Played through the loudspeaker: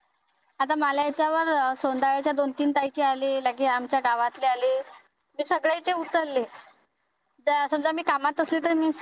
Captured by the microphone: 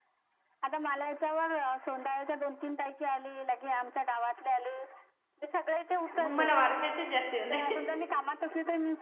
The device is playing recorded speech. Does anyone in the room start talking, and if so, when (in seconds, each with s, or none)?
6.1 s